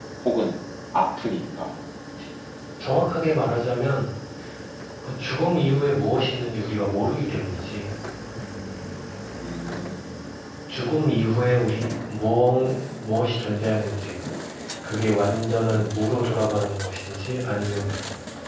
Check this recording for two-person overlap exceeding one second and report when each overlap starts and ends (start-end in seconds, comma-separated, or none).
none